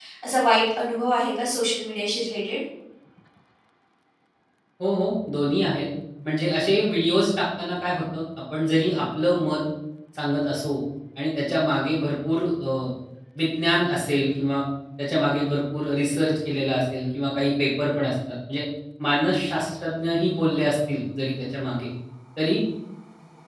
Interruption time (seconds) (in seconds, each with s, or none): none